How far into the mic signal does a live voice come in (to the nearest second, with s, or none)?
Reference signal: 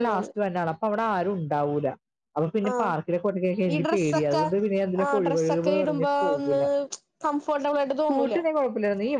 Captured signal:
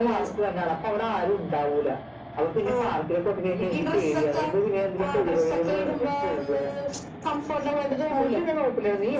none